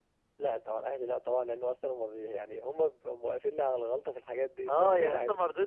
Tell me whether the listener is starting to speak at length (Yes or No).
Yes